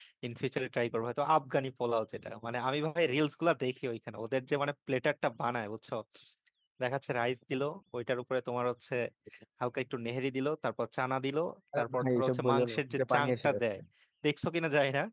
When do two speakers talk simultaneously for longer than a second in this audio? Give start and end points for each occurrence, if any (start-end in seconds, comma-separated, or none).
11.8-13.6